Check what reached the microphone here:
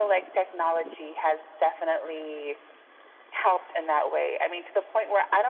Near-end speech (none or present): none